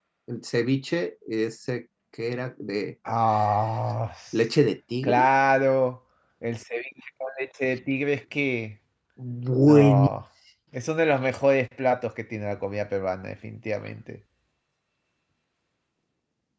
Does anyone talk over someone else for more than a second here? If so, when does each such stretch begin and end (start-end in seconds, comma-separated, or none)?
none